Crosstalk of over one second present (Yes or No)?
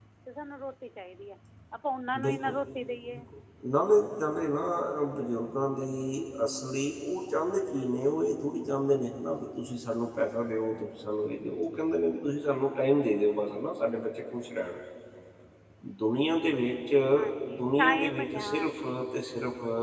Yes